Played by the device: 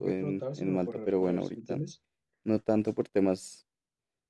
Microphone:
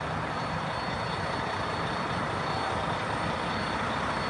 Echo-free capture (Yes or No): Yes